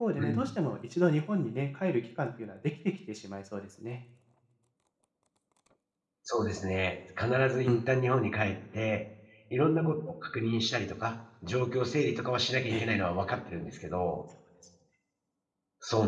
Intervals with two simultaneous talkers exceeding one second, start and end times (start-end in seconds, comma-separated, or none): none